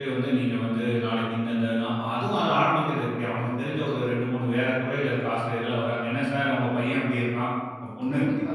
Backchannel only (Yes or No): No